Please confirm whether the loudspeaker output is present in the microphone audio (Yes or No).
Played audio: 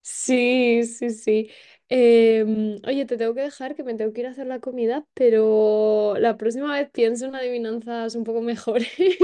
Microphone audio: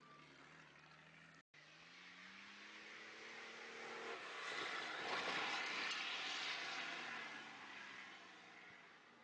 No